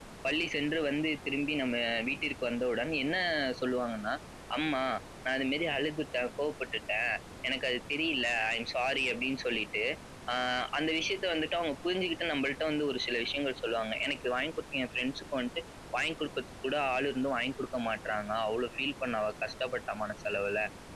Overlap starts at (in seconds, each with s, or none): none